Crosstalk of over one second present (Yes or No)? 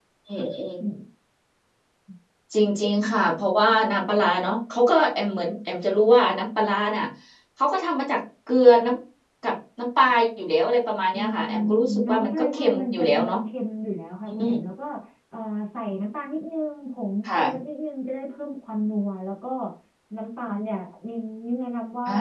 Yes